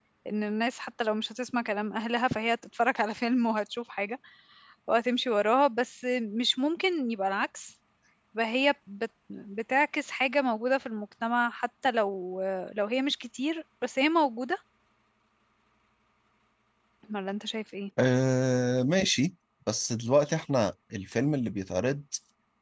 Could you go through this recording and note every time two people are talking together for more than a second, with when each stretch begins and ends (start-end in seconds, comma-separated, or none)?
none